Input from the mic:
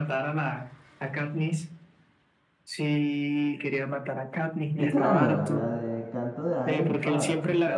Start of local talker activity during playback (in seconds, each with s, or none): 4.7 s